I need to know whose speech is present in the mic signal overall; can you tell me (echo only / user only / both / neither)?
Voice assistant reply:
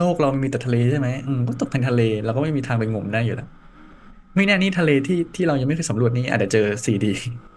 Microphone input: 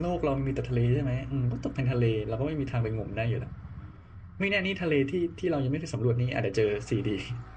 echo only